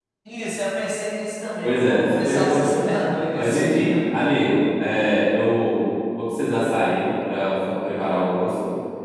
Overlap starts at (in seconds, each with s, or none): 1.6 s